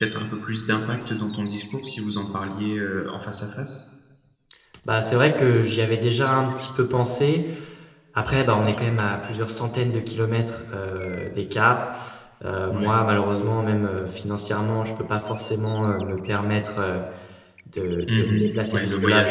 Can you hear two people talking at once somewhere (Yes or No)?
Yes